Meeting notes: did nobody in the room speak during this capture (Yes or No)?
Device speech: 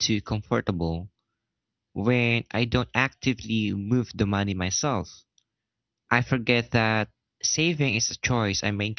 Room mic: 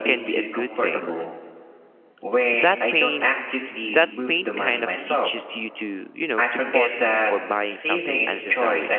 No